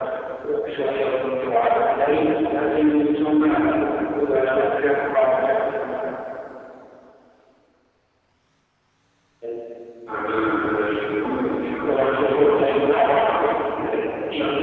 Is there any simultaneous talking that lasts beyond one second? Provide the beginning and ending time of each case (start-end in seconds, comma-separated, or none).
11.9-13.5